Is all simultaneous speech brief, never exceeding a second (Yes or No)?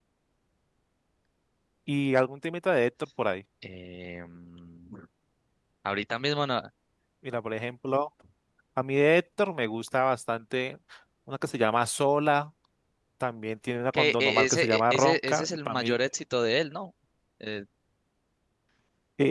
No